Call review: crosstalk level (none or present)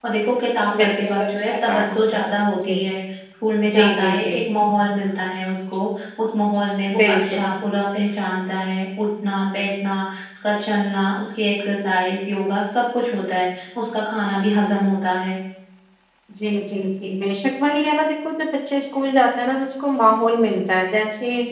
present